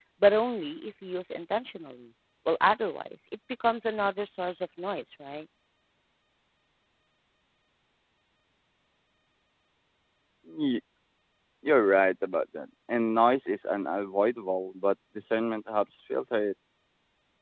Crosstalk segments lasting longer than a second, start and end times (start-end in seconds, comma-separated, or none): none